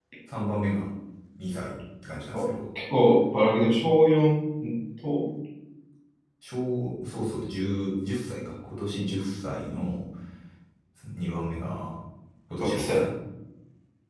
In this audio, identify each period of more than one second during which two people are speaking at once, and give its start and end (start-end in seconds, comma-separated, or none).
none